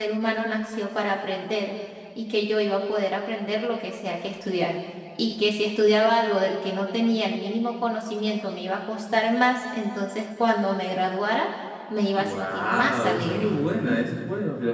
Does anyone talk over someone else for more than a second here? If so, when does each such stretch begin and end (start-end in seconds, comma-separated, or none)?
12.2-13.5